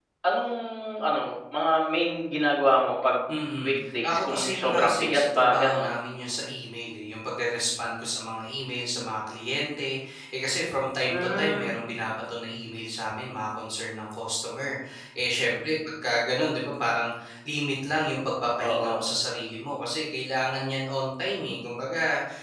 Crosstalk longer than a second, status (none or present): present